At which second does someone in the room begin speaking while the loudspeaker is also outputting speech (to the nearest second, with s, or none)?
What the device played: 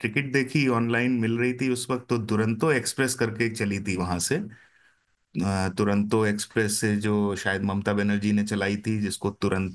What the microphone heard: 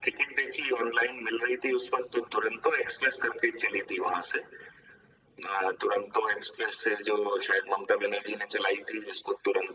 none